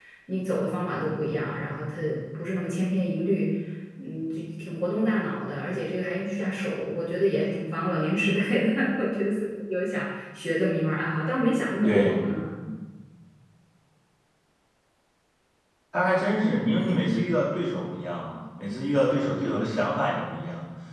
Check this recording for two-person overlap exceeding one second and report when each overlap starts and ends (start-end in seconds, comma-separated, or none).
none